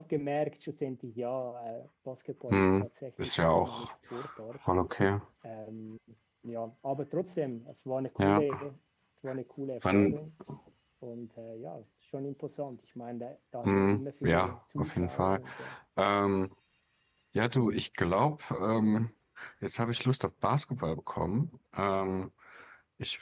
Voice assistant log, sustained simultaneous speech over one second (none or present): present